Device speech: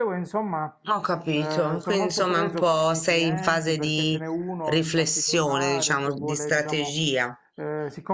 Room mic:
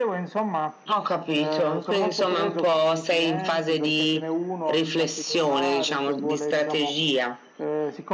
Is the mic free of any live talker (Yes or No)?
Yes